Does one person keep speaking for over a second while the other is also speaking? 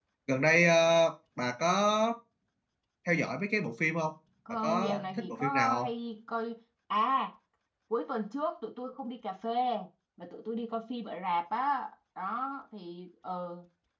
Yes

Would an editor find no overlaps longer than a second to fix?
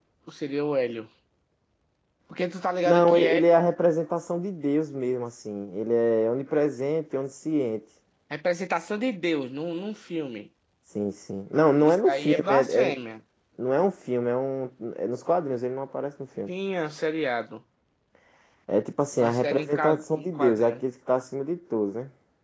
No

